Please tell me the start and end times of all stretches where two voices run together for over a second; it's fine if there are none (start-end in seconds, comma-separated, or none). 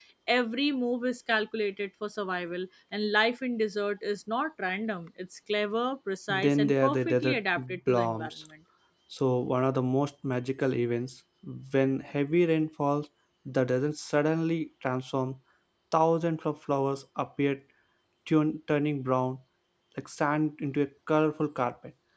6.3-8.3